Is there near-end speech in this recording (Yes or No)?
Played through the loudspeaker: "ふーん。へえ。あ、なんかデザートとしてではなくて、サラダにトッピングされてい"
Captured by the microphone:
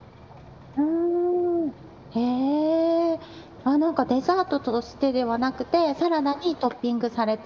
No